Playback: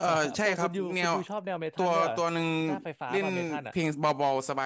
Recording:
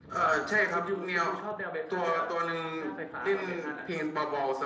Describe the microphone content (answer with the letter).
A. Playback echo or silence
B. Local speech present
A